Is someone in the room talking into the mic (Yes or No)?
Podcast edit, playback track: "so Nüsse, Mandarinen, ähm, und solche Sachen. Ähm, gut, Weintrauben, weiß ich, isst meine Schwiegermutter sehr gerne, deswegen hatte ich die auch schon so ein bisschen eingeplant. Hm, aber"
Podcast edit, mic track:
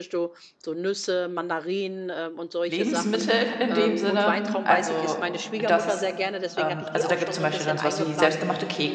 Yes